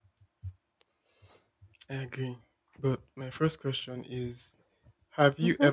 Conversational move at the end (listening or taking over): listening